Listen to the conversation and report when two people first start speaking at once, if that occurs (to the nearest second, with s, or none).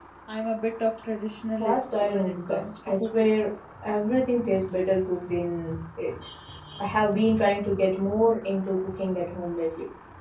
2 s